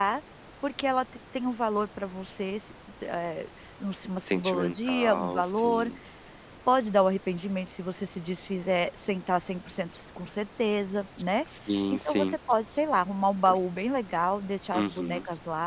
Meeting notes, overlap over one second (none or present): present